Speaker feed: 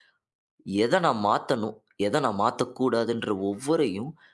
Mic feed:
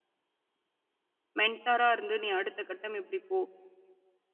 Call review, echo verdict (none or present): none